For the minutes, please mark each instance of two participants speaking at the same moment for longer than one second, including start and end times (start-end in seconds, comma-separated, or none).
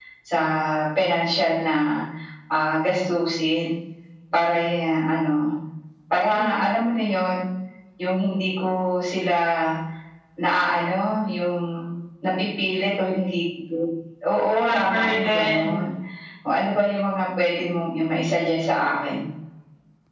14.6-15.8